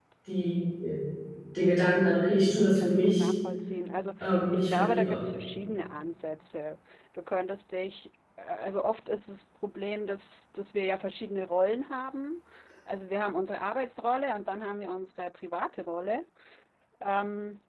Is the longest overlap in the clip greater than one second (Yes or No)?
Yes